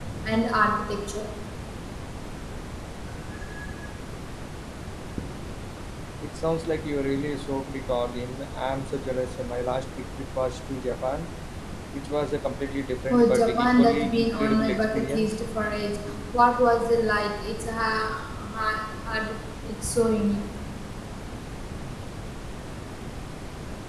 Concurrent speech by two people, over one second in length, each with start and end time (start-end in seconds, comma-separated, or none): 13.1-15.3